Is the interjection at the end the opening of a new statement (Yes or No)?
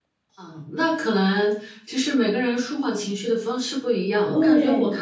No